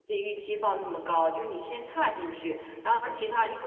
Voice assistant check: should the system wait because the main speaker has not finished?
Yes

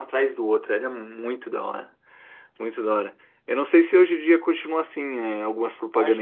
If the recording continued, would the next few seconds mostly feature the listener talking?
Yes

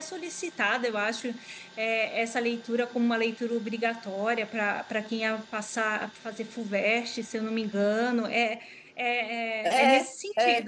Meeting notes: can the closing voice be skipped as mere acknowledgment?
Yes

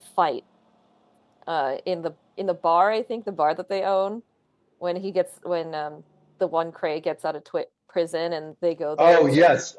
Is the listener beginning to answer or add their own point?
Yes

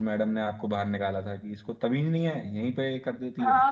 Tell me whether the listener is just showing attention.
No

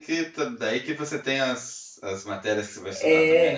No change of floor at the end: No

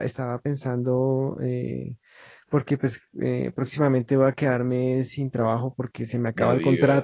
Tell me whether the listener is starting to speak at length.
No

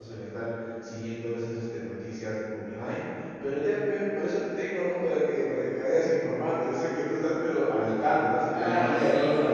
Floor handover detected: Yes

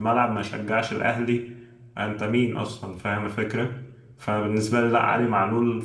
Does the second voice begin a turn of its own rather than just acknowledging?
No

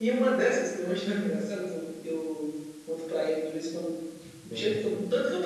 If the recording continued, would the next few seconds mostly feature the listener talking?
No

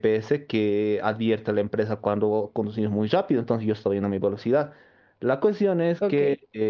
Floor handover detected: No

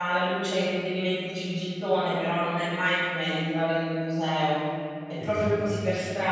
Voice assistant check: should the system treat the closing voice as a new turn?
No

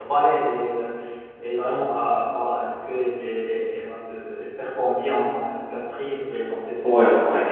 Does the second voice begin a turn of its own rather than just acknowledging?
Yes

